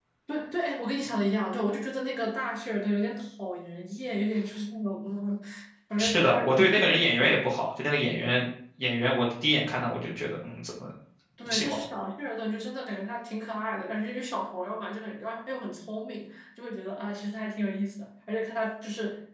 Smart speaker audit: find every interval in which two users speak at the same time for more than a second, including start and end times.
6.0-7.3

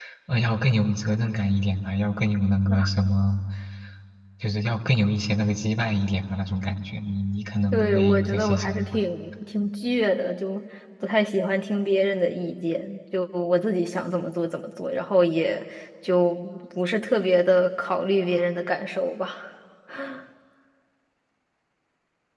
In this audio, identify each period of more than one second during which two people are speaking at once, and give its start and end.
7.7-9.0

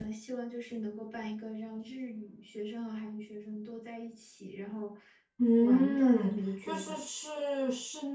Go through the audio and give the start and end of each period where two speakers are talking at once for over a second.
5.6-7.0

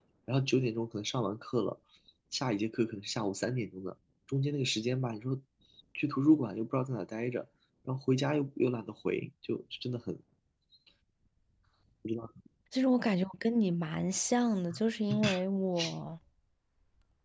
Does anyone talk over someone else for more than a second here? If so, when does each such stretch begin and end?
none

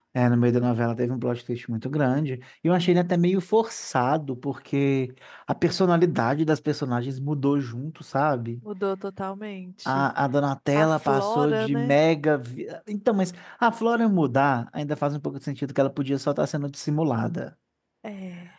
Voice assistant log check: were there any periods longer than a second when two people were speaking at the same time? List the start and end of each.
10.8-12.0

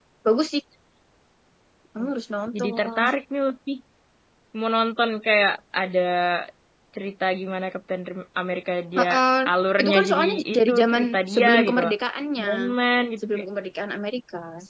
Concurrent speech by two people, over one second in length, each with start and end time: 9.8-11.8

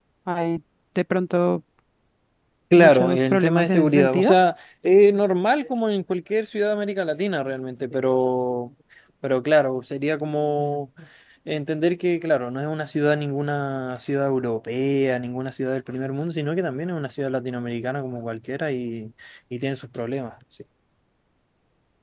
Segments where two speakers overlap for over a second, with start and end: 2.8-4.3

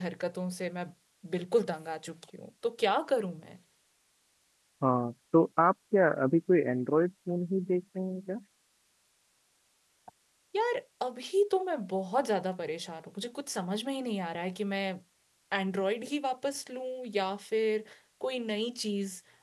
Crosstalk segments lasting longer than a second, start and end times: none

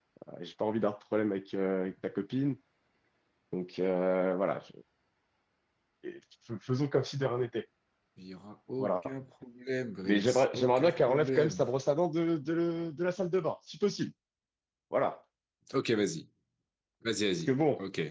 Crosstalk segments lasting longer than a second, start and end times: 10.1-11.6

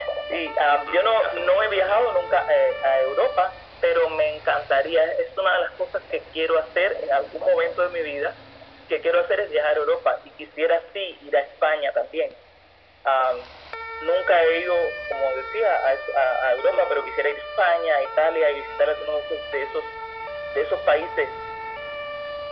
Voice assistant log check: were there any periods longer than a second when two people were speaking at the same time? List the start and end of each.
0.9-2.1

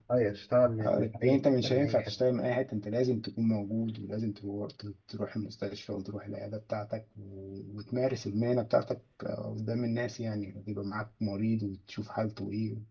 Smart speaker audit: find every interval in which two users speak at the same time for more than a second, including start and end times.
0.8-2.2

